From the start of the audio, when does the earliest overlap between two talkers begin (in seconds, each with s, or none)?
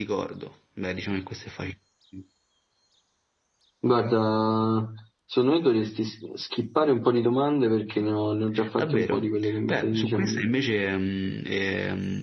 8.6 s